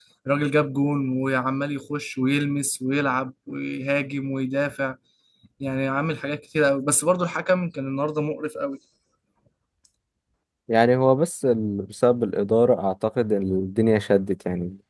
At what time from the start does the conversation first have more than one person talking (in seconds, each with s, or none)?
none